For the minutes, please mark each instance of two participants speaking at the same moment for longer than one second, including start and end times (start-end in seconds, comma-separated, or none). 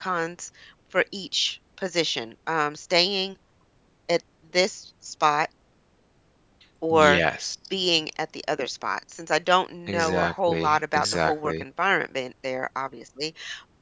9.9-11.6